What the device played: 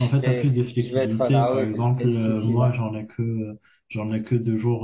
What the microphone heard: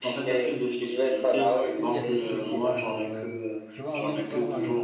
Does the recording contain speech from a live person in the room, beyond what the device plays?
Yes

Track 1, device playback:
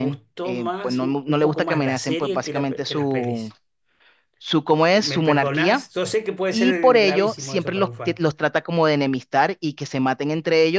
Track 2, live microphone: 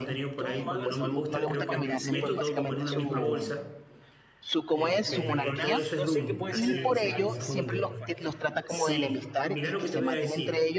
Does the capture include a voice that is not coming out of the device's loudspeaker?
Yes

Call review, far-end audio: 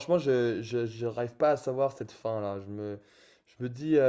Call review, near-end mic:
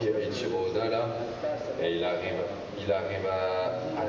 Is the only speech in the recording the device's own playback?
No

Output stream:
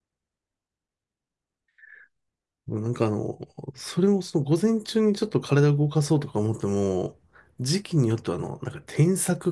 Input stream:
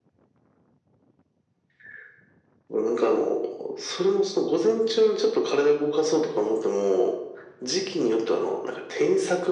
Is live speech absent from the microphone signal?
Yes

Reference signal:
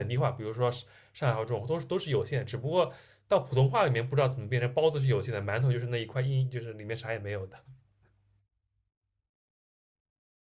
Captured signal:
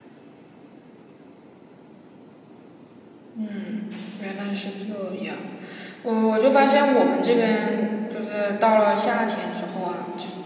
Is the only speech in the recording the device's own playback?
No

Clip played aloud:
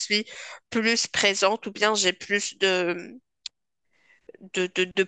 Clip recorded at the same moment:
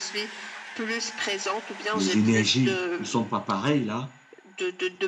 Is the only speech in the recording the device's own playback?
No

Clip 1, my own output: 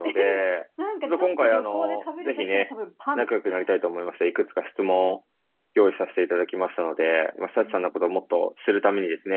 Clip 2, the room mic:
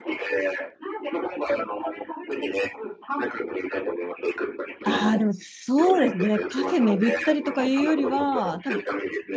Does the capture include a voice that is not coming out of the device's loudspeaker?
Yes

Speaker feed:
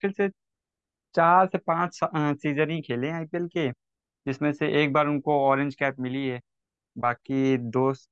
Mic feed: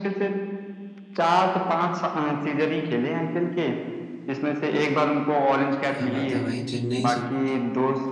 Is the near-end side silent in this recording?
No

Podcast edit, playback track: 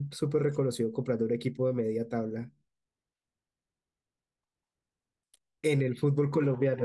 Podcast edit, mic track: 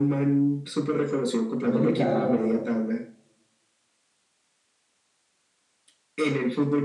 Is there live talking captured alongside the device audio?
Yes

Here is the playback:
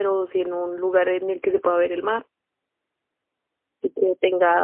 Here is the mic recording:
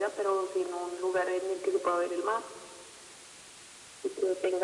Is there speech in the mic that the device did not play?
No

